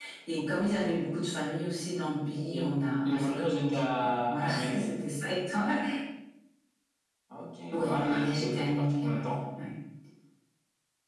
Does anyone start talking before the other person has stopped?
Yes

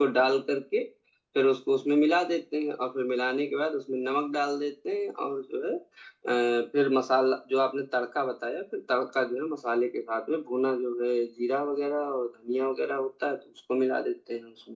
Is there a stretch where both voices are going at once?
No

